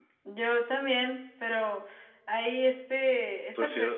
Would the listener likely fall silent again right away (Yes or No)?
Yes